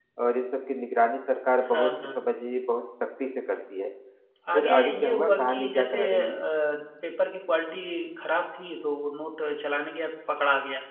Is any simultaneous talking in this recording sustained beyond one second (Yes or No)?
Yes